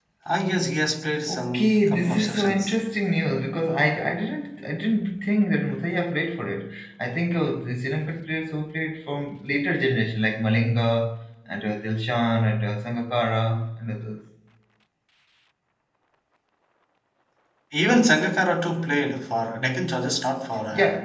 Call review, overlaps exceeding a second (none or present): present